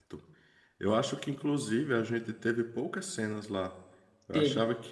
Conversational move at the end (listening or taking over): listening